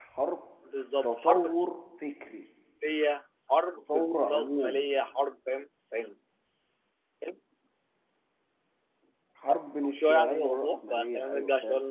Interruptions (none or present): present